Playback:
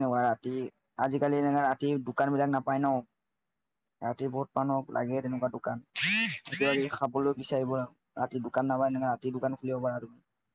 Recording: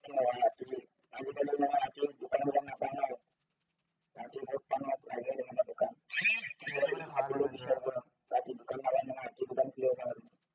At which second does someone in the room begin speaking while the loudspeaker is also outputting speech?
6.7 s

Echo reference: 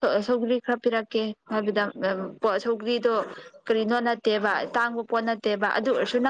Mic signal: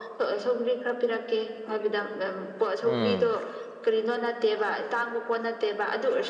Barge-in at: 2.8 s

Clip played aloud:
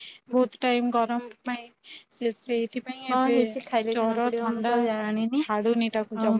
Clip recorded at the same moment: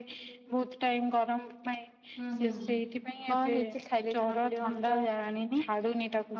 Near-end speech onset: 2.2 s

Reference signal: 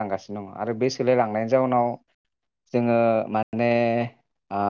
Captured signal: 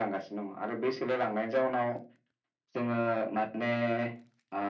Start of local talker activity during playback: none

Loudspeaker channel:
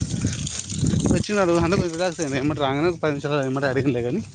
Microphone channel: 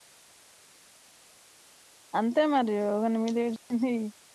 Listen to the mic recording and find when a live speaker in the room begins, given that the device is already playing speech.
2.2 s

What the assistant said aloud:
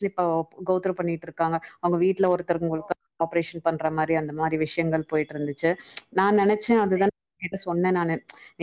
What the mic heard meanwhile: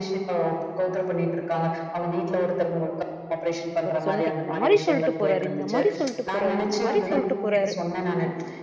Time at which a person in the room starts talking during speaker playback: 3.8 s

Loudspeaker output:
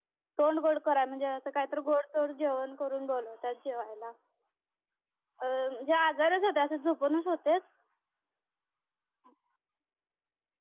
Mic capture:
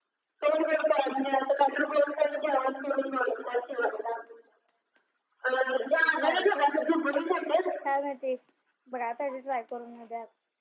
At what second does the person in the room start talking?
5.6 s

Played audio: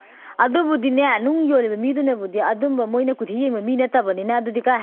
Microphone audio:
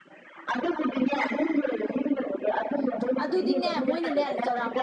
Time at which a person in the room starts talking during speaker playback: 2.7 s

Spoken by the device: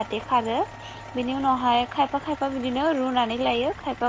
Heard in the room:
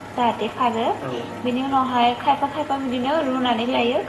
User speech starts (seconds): 1.1 s

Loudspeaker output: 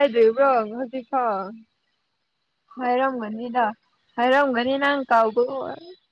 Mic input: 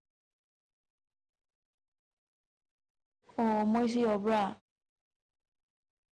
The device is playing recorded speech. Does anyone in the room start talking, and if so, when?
3.4 s

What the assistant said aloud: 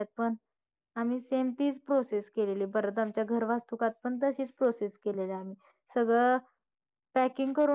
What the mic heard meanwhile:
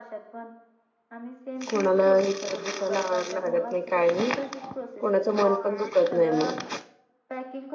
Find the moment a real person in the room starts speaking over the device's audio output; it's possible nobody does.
1.7 s

